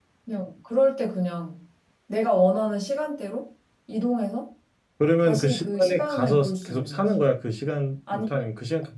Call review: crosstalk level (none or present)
present